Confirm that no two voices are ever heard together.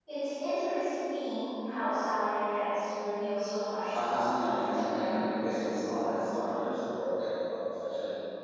No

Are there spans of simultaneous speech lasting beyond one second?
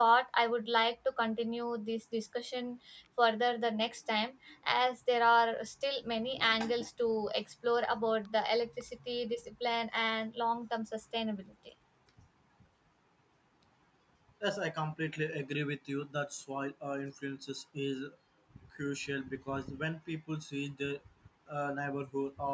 No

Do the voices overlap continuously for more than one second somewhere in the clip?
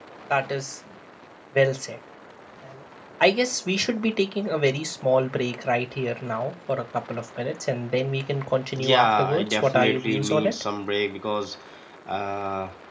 Yes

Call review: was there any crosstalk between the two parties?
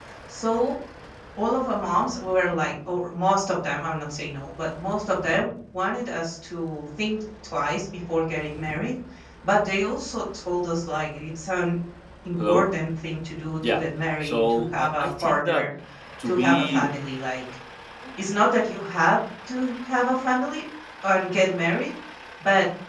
Yes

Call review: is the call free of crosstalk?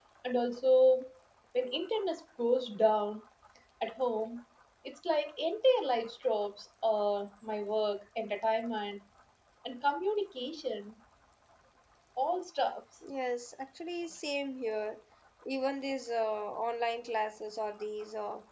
Yes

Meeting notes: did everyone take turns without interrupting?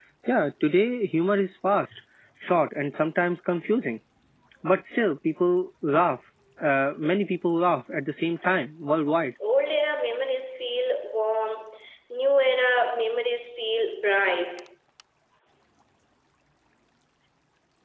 Yes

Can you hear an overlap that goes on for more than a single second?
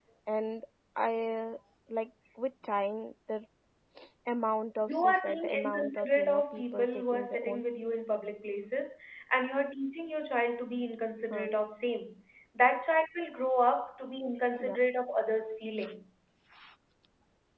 Yes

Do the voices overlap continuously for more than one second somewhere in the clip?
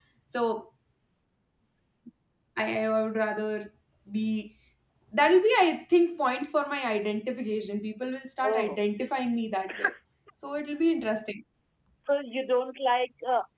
No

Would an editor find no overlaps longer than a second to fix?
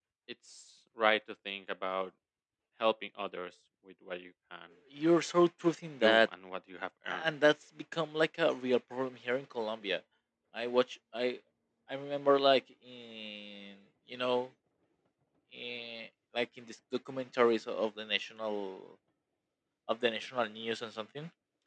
Yes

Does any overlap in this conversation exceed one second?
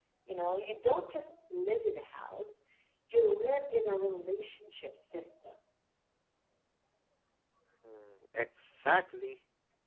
No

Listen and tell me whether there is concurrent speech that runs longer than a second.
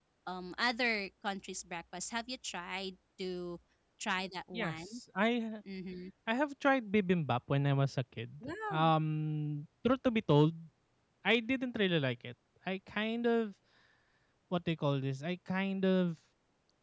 No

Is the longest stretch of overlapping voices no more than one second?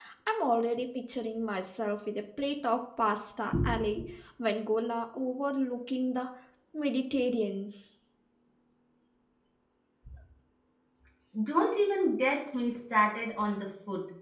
Yes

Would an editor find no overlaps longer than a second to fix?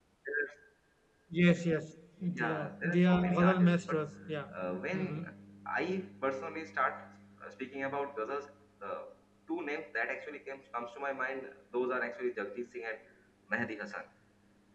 No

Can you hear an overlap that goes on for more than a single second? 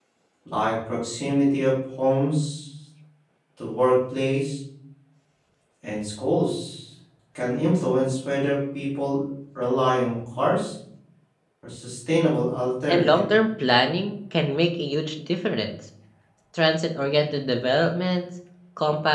No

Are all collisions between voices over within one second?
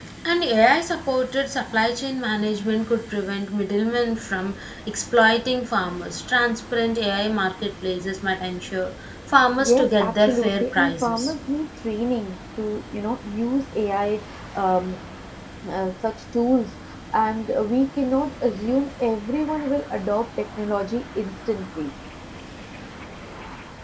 No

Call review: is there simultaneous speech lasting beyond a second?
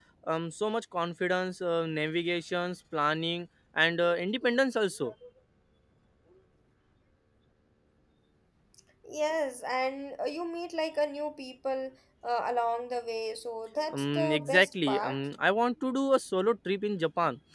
Yes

